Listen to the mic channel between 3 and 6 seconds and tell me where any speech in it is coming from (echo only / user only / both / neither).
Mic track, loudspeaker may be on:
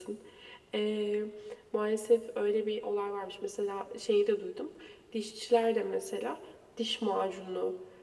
echo only